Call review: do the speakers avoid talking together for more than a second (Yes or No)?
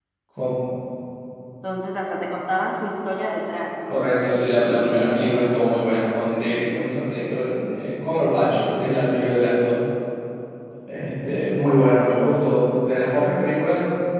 Yes